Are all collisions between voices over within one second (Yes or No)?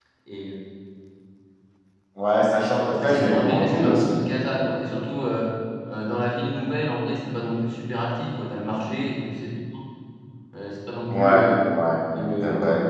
No